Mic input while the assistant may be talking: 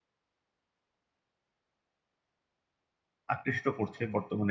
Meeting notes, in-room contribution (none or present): present